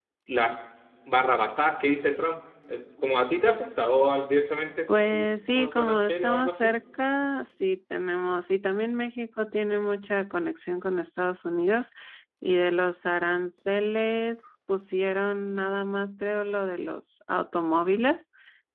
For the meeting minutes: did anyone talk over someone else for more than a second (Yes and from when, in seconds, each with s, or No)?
Yes, from 4.9 s